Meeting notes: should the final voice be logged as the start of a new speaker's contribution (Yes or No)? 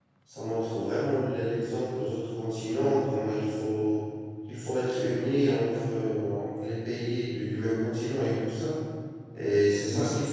No